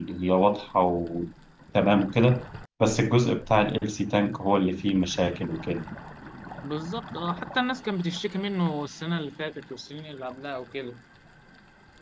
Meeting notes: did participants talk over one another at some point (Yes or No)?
No